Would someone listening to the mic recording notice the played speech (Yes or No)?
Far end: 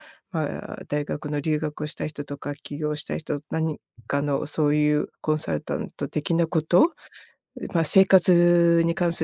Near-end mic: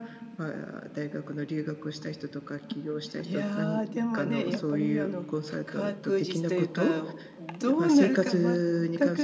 Yes